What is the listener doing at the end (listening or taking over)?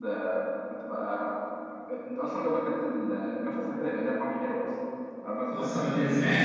taking over